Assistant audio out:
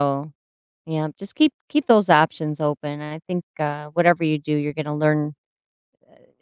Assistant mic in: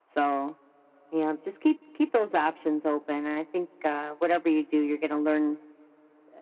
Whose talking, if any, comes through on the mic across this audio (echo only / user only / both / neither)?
echo only